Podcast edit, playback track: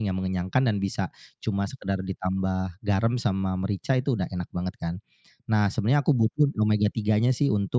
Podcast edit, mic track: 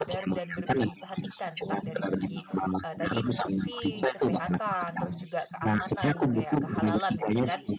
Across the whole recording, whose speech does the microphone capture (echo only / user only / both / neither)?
both